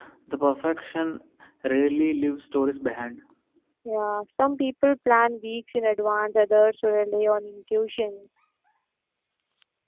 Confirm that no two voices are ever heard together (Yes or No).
Yes